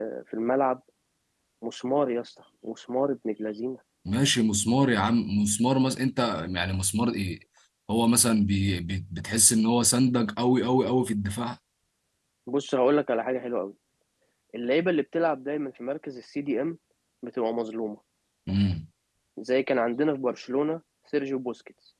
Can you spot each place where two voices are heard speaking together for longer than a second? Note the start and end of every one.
none

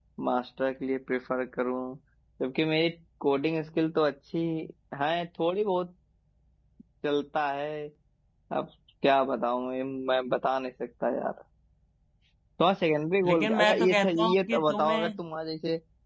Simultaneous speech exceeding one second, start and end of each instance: 13.3-15.1

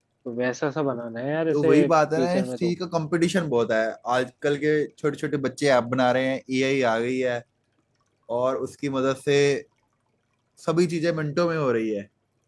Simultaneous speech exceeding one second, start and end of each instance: 1.5-2.7

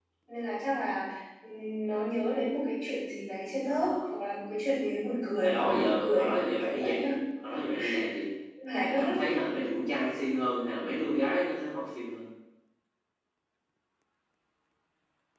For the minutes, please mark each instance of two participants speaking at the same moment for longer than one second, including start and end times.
5.4-7.1

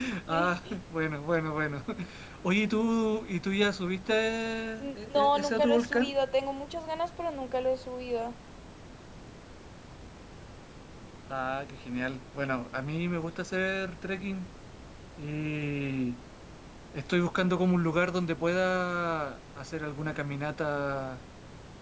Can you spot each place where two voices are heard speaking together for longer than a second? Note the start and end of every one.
4.8-6.1

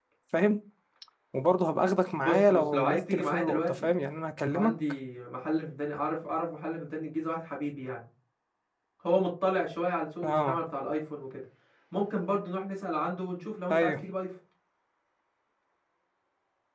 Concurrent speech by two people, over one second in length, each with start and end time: 2.2-3.9

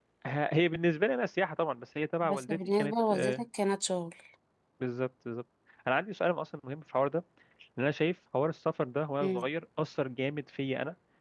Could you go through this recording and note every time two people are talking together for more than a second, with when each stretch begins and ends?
2.2-3.4

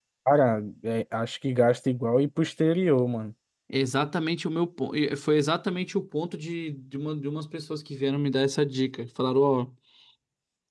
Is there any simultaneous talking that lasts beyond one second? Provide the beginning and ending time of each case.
none

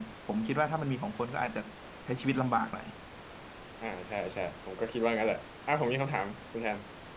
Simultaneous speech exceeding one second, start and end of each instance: none

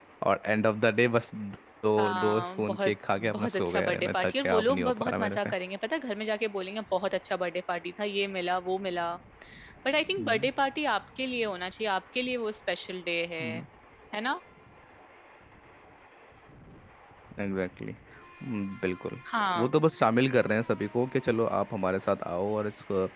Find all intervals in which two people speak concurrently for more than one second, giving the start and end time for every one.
2.0-5.5

